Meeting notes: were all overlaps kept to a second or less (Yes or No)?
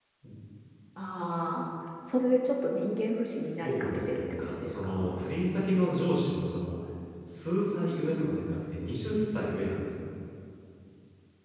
No